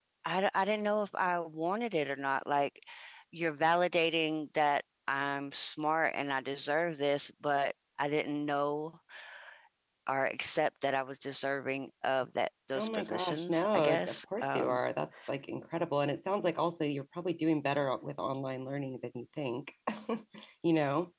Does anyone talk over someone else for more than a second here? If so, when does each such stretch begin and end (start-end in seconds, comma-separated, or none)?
12.8-14.8